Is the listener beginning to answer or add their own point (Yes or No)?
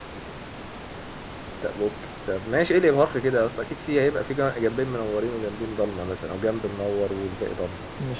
Yes